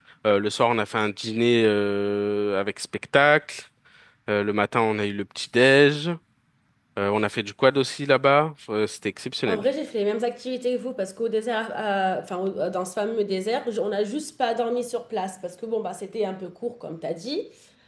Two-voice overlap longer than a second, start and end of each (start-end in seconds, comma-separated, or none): none